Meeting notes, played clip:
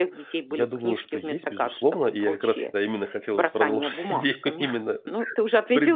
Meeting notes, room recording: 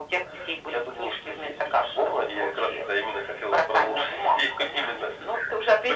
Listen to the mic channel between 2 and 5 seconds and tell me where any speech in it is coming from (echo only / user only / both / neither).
echo only